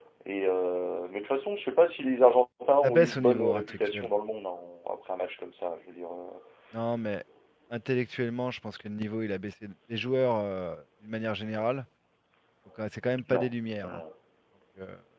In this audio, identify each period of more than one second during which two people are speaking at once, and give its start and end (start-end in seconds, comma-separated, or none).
2.8-4.1